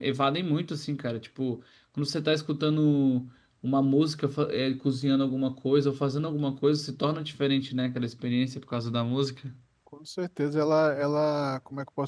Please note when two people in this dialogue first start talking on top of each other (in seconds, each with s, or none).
none